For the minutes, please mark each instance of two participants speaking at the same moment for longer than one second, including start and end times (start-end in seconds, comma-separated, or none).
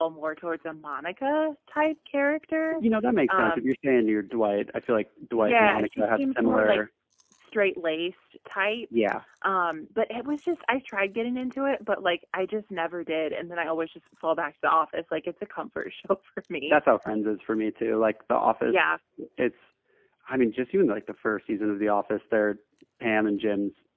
5.3-6.8